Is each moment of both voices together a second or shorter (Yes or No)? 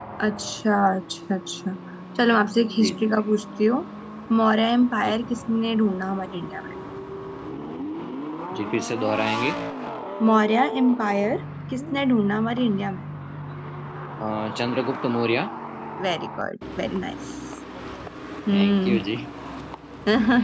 Yes